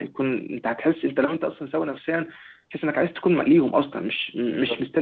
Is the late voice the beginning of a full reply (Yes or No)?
No